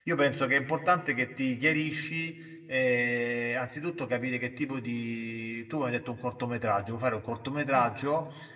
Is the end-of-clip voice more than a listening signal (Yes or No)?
No